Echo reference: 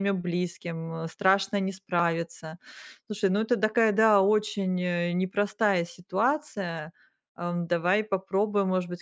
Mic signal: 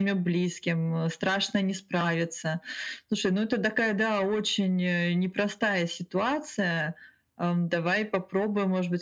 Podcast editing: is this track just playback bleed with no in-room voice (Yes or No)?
Yes